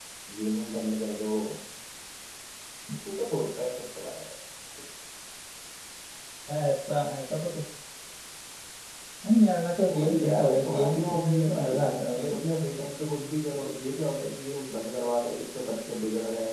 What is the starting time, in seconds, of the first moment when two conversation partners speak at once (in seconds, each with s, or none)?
9.9 s